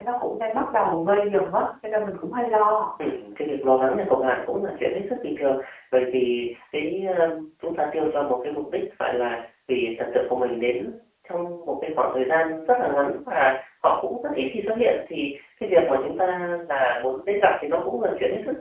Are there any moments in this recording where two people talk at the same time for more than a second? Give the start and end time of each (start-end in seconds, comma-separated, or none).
none